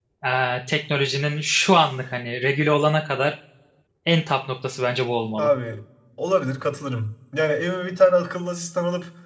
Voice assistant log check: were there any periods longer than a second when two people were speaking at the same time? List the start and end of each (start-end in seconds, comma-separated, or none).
none